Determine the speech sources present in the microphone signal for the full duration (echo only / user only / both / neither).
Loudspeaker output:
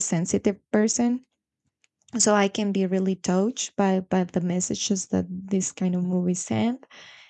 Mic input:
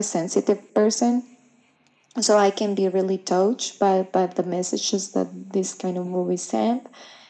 echo only